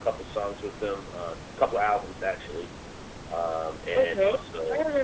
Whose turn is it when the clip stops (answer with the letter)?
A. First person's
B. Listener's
B